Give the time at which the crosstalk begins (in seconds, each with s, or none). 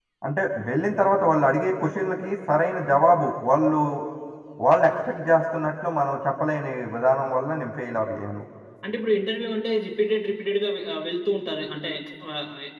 none